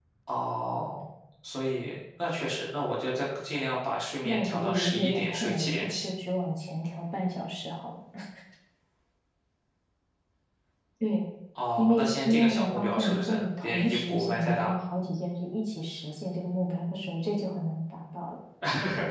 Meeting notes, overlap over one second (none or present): present